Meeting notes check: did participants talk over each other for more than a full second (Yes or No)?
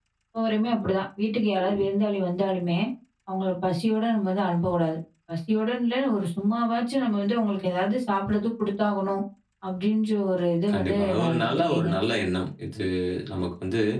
Yes